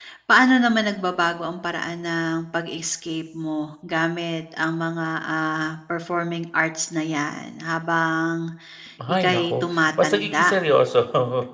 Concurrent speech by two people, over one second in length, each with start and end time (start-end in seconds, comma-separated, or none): 9.1-10.6